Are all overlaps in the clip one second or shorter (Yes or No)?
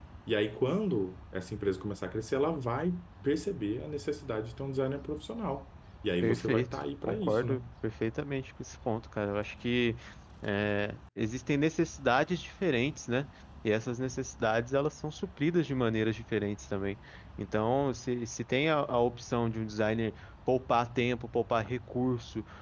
No